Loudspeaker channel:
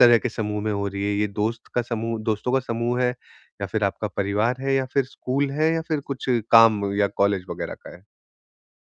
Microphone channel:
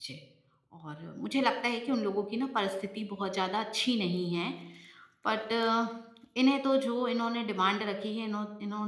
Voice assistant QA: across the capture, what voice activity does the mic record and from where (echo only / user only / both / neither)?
user only